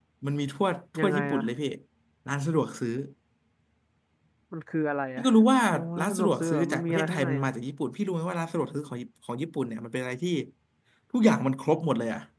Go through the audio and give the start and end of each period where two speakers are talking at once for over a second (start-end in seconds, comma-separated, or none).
6.0-7.5